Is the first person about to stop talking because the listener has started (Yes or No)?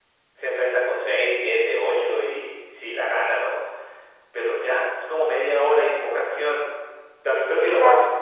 No